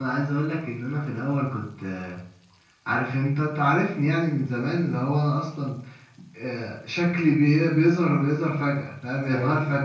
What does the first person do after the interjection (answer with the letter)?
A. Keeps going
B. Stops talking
A